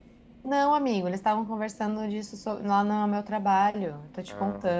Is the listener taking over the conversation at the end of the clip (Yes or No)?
Yes